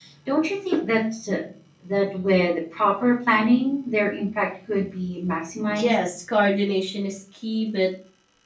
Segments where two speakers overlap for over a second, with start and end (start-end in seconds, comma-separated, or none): none